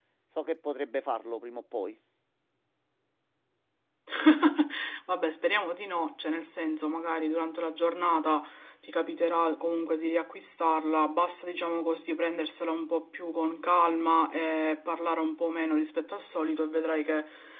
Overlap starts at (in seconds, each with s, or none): none